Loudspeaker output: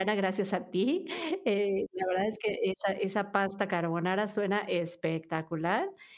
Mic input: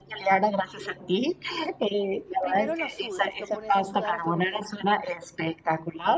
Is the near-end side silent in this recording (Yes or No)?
No